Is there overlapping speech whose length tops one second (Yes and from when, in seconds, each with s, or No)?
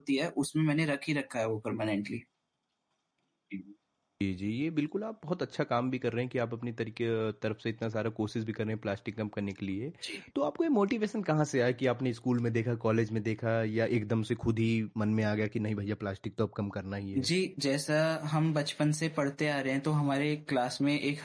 No